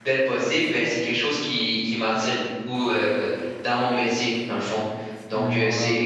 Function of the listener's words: listening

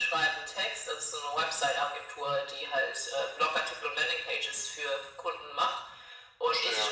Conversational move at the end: listening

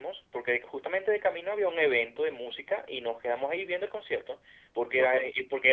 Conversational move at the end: listening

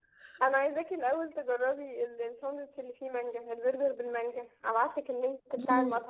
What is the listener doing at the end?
taking over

